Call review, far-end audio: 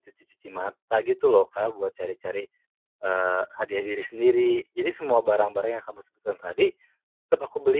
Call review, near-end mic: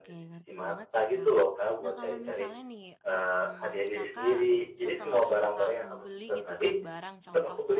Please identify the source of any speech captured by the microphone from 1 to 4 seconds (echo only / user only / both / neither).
both